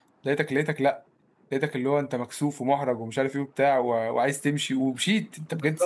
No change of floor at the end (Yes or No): No